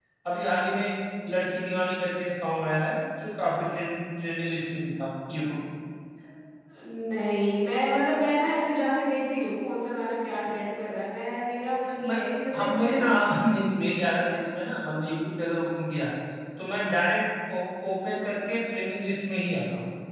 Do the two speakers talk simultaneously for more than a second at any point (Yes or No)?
No